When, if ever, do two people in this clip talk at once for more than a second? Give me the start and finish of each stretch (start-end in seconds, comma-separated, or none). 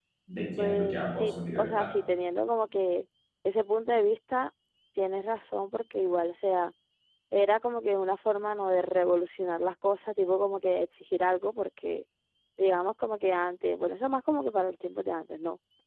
0.6-1.9